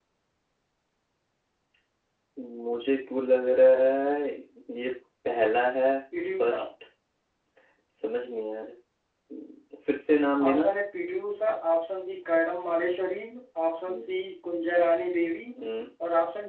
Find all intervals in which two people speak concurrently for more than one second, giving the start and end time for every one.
none

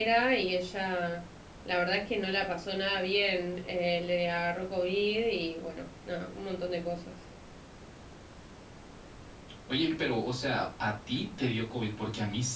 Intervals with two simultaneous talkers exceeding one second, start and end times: none

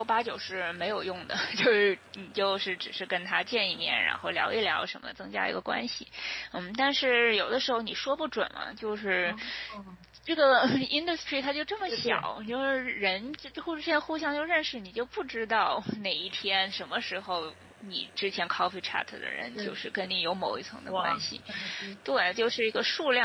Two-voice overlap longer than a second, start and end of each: none

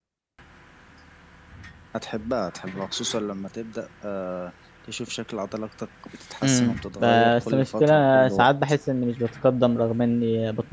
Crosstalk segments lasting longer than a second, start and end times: 6.4-8.5

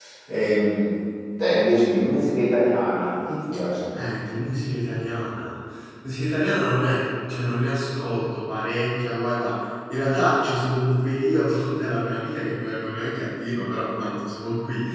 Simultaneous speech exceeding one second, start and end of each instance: none

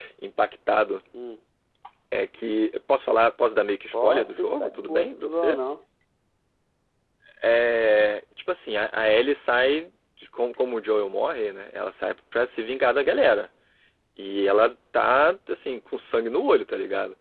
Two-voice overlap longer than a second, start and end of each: 3.9-5.6

